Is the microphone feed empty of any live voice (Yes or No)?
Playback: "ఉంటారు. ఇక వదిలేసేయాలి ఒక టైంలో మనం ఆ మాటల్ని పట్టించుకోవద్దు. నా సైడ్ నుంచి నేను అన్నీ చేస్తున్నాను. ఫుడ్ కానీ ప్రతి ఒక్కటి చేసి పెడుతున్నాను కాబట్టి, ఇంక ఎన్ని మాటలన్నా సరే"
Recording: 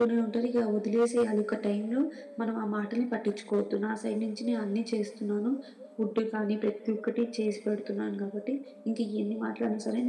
Yes